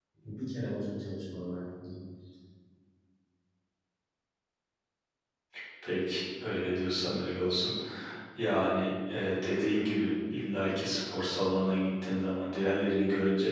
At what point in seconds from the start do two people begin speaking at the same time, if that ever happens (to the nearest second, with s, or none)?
none